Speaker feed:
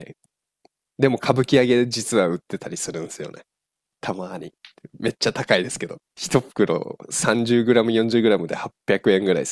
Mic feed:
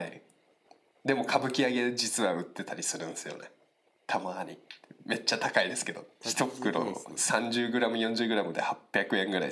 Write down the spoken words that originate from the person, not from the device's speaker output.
太刀打ちできないですね。

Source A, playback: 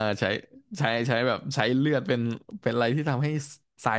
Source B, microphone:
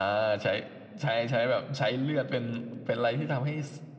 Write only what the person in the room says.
none

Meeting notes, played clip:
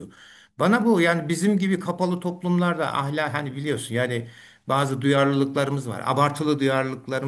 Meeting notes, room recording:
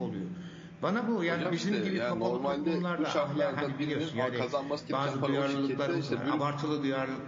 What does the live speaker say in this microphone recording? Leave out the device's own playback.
Hocam işte yani normalde bu şartlarda birinin a- kazanması gereken para o şirkette işte brüt

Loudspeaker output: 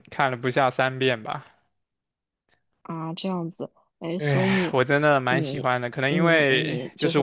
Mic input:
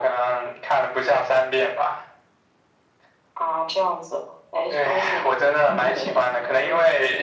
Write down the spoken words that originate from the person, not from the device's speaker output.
对，可能

